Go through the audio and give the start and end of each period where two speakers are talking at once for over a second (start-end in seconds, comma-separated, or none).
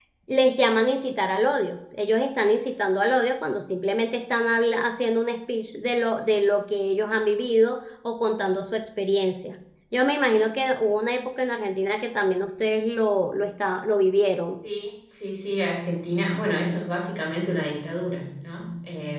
none